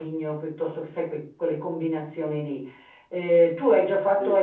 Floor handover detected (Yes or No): No